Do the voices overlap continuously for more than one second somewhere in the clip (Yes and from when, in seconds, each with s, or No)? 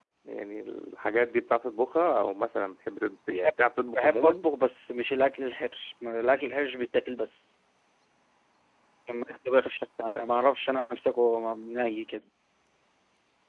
No